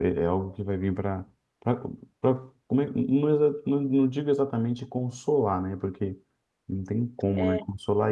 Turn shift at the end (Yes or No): No